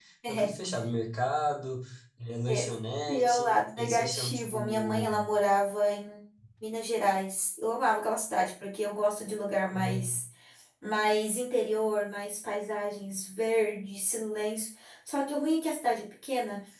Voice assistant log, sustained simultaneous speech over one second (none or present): present